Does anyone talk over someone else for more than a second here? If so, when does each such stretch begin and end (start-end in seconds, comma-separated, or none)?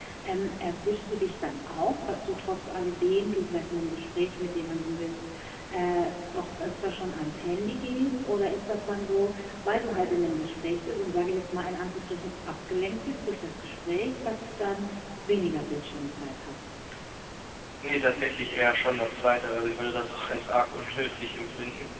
none